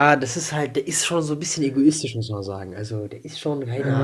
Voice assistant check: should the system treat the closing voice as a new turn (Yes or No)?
No